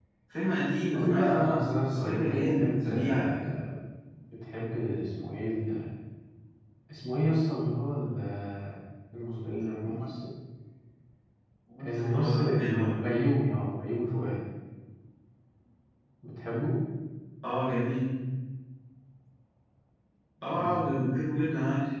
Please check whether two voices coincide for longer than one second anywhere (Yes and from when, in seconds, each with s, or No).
Yes, from 0.9 s